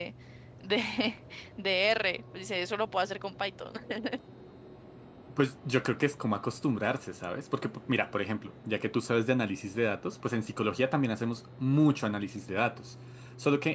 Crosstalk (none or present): none